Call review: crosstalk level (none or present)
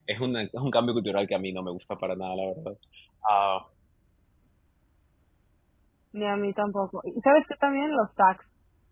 none